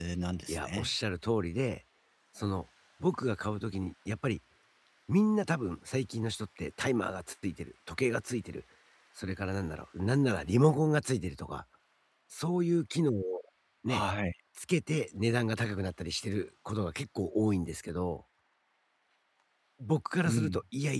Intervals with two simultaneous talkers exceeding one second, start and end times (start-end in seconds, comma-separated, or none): none